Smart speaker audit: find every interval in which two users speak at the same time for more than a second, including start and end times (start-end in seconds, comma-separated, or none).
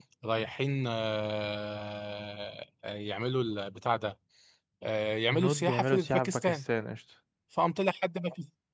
5.3-6.6